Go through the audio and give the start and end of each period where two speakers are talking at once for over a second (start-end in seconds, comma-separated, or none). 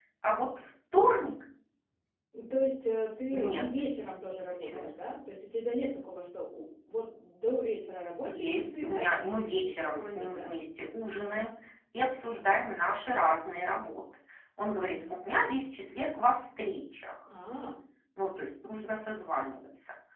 8.3-10.5